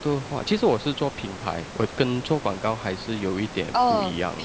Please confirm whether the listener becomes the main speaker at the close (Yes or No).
Yes